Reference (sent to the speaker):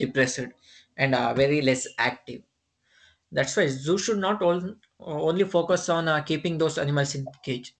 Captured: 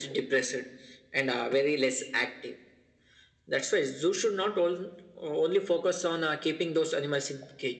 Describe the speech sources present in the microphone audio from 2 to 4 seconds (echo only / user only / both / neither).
echo only